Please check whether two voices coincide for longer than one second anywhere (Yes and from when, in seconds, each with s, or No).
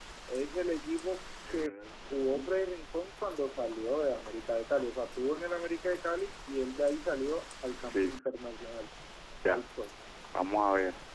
No